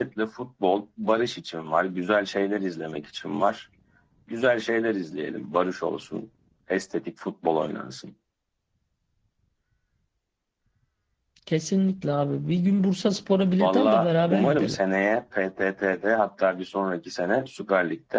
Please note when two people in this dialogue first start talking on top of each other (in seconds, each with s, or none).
13.6 s